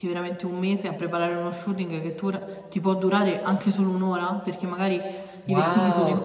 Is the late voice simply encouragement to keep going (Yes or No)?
No